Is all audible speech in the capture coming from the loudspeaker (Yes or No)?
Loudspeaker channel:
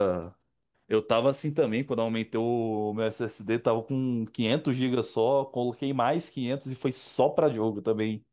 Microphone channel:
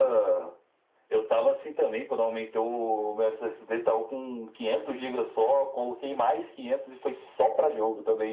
Yes